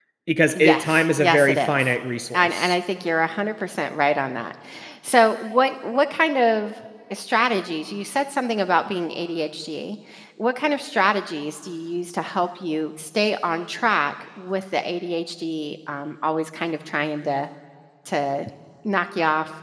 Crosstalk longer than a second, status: present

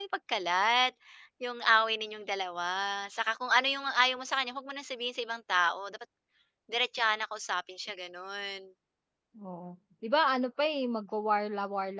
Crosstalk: none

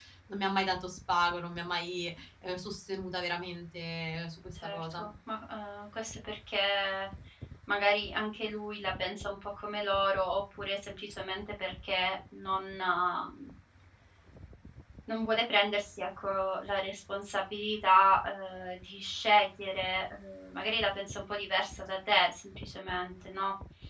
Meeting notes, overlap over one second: none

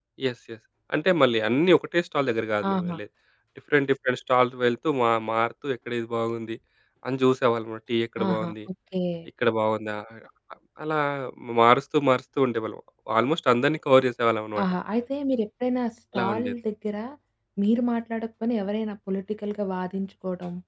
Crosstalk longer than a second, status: none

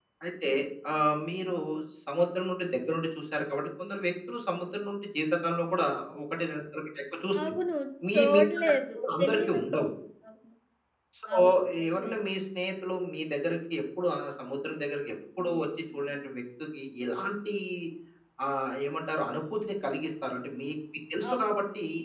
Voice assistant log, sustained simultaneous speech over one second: present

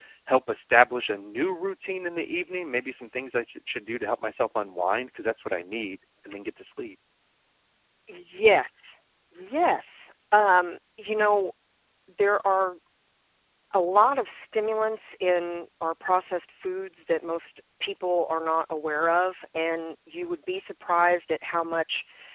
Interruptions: none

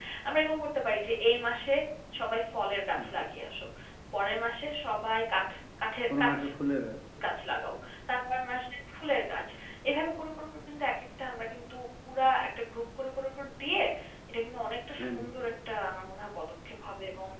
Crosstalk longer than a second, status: none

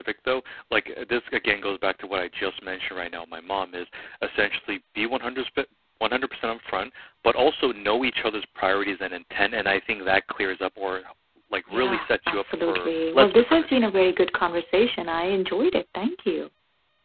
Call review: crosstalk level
present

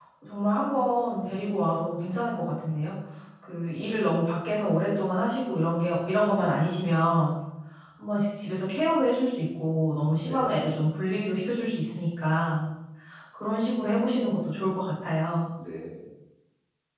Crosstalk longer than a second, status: none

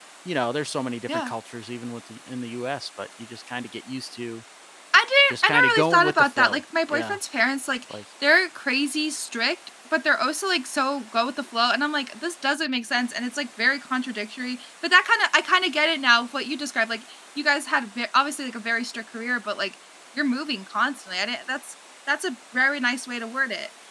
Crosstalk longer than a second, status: present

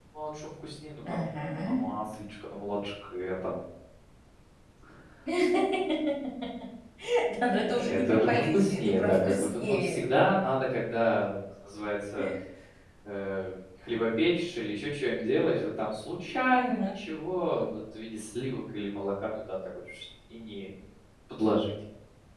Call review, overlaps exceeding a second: present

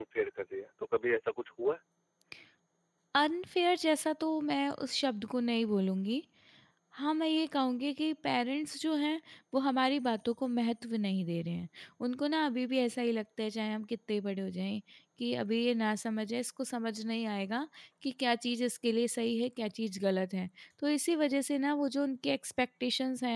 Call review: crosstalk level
none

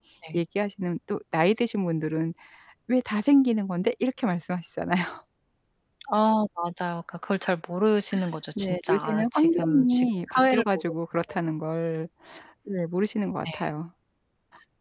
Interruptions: present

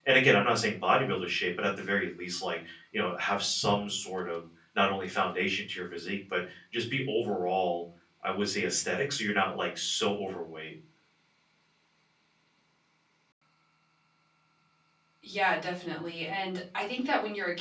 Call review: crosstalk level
none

